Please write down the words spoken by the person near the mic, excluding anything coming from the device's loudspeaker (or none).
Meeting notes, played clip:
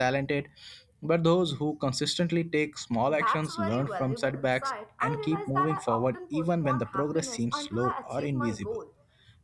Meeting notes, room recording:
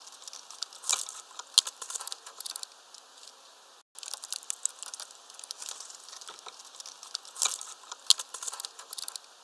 none